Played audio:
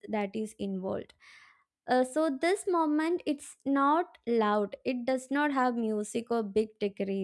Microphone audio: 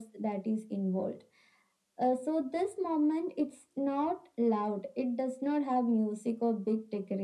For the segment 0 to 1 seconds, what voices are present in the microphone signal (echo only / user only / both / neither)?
echo only